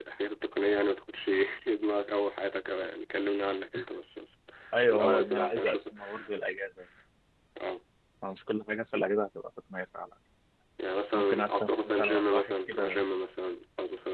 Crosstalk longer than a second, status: present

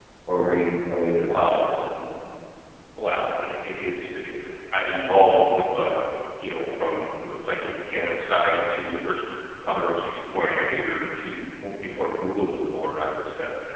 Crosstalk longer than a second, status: none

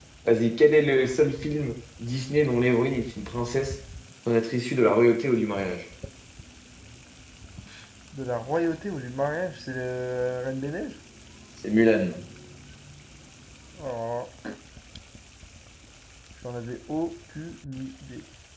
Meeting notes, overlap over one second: none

